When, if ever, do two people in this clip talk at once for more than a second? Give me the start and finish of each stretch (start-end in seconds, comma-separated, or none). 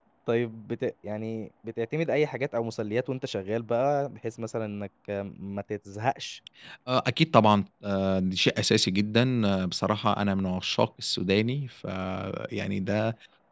none